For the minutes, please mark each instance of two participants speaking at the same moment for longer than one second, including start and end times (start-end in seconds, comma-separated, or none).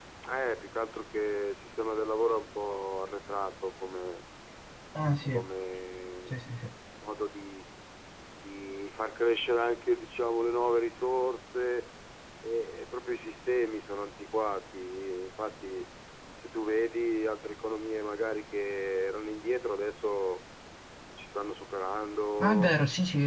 none